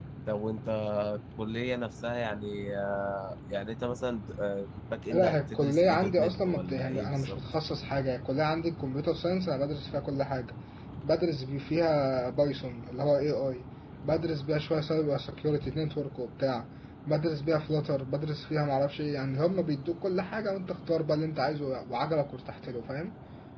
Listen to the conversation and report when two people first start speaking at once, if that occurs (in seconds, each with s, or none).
5.1 s